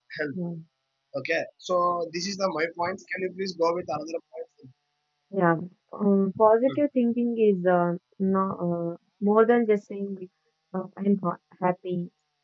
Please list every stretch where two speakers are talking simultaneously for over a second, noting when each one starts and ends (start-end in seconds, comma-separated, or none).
none